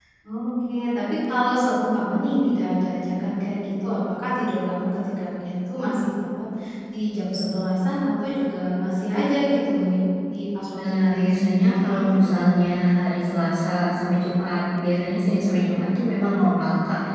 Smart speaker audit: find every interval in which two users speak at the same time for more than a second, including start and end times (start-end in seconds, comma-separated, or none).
10.7-12.3